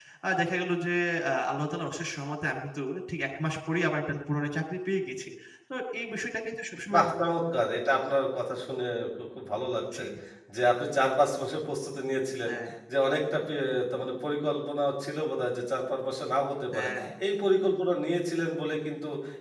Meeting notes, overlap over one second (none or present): none